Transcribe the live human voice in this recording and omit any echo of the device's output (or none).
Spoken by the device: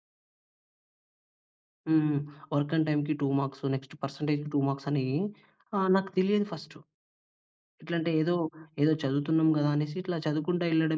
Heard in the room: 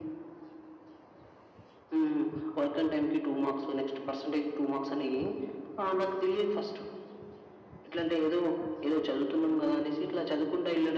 none